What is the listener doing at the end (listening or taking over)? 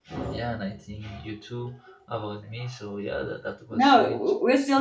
taking over